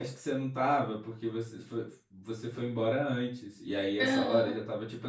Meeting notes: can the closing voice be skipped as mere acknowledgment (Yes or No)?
Yes